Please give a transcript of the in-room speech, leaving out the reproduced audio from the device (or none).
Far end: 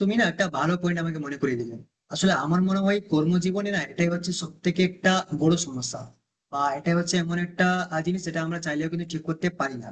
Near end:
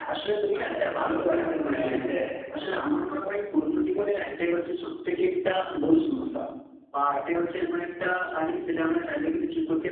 আচ্ছা আচ্ছা বুঝতে পারছি মানে হচ্ছে